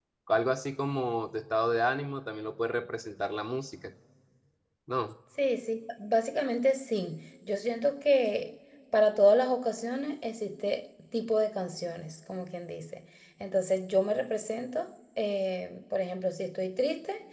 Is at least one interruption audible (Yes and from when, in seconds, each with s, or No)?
No